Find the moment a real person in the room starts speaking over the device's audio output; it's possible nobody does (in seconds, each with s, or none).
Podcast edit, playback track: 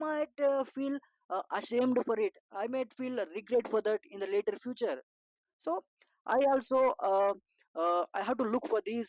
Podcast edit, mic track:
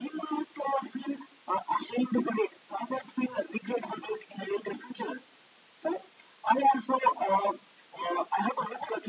none